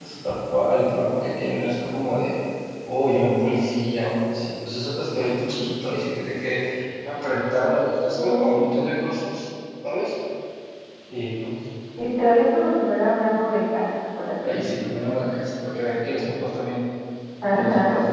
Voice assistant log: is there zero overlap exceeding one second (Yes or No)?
Yes